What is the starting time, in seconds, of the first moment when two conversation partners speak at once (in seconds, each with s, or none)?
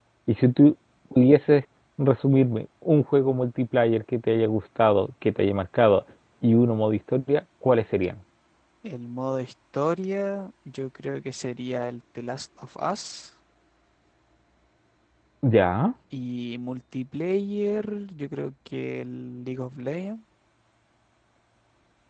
none